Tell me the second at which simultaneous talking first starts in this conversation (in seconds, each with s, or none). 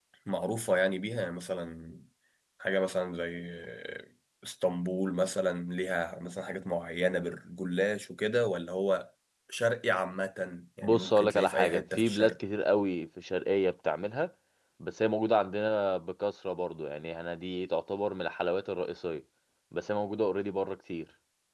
10.8 s